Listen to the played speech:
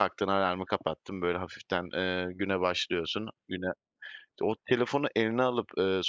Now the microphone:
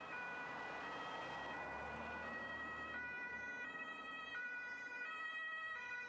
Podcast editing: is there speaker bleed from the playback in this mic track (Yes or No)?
No